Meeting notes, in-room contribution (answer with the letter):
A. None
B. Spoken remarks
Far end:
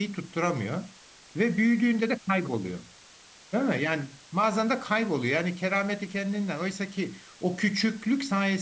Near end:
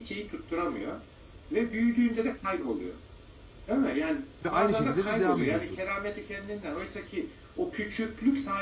B